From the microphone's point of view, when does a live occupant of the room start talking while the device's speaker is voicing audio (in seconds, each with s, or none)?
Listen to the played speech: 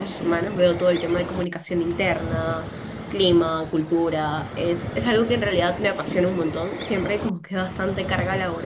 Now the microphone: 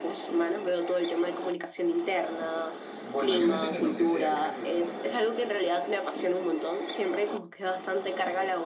3.0 s